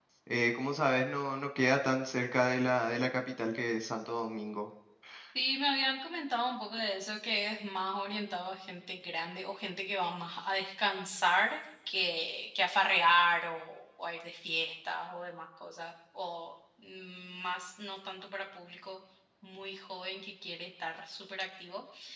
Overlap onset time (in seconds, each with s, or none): none